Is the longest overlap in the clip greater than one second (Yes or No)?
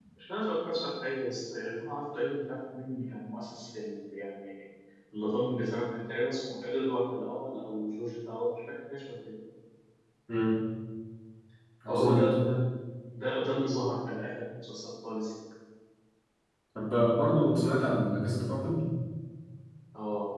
No